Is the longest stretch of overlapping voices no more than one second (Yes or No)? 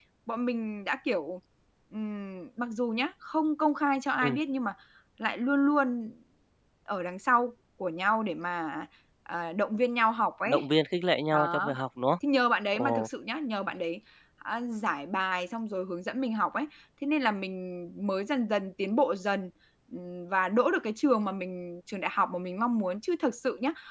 Yes